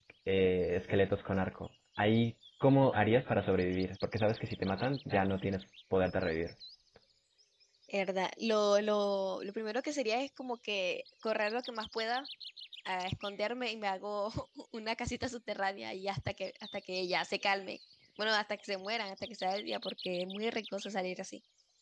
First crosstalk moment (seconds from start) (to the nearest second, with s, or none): none